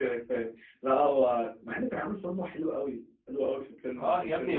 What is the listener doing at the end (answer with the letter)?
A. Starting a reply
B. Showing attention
A